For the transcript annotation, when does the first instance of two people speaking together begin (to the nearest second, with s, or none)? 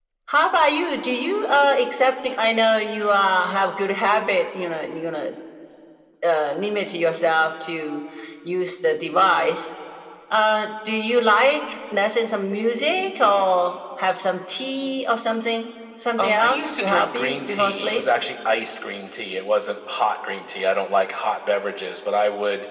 16 s